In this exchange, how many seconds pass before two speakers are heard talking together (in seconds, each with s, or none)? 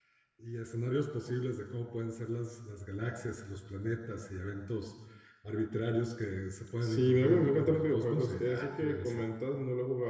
6.8 s